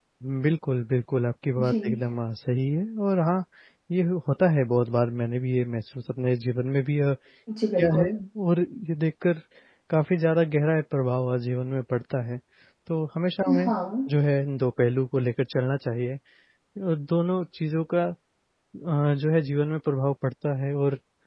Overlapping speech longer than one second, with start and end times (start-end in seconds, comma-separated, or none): none